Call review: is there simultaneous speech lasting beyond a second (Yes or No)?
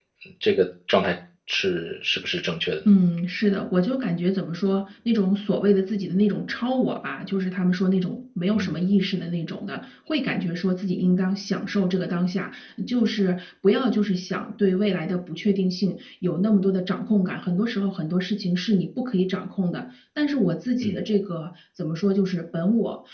No